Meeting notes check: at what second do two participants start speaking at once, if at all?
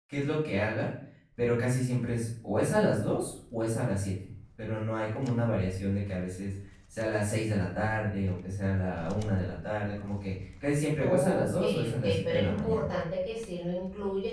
11.0 s

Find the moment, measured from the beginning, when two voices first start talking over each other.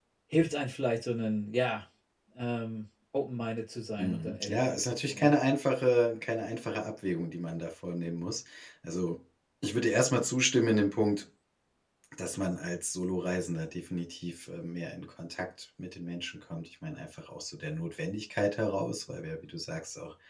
4.0 s

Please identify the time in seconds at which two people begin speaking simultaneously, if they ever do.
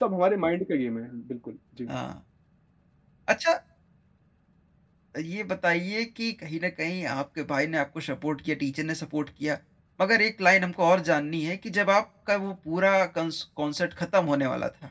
none

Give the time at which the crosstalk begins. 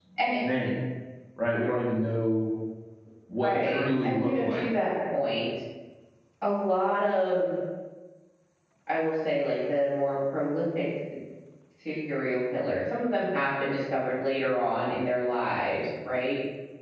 3.4 s

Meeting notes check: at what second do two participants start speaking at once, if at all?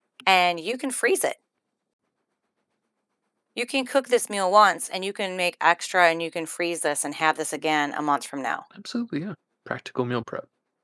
none

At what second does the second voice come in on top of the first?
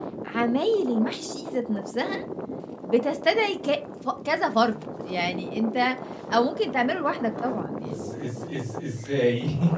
none

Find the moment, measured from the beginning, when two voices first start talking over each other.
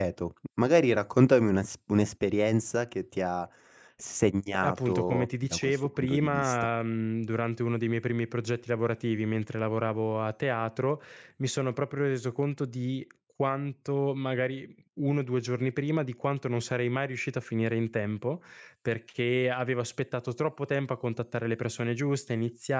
4.5 s

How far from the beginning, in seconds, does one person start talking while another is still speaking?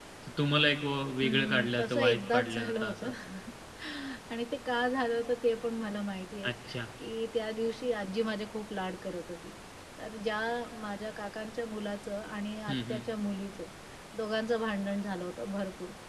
1.2 s

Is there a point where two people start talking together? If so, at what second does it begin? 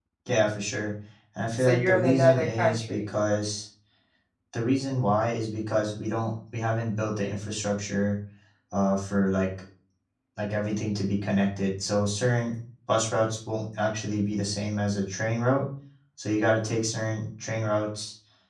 1.6 s

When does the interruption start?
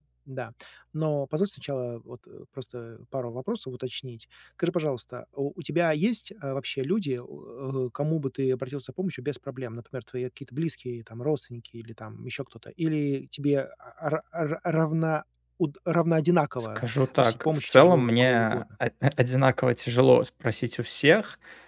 16.8 s

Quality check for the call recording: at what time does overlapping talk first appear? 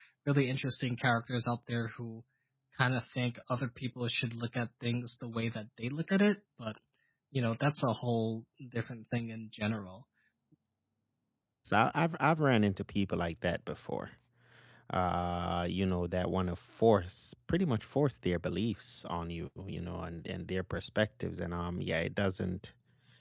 none

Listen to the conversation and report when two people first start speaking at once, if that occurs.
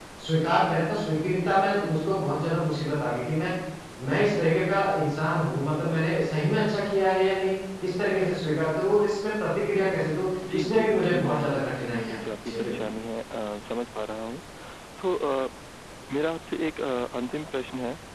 10.4 s

